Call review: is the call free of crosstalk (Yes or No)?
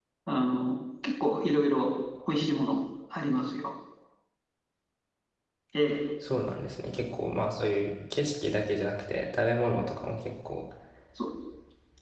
Yes